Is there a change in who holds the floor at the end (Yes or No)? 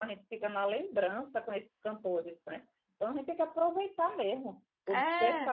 No